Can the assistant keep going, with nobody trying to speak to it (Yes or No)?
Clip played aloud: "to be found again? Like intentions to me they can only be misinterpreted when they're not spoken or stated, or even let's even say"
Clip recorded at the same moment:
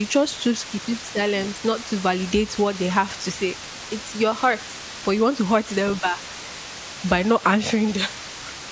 No